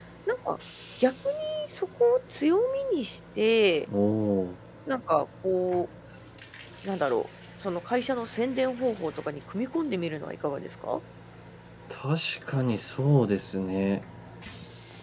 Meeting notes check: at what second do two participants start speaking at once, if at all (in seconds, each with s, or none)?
none